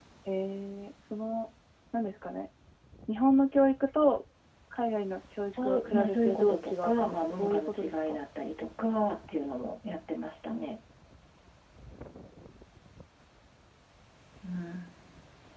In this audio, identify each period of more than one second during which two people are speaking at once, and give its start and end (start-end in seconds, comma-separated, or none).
5.5-8.2